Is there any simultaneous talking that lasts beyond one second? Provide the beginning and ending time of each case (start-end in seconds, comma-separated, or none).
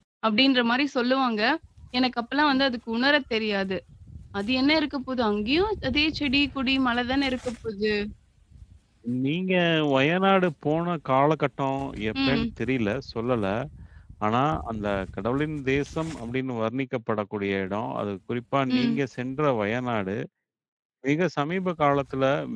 none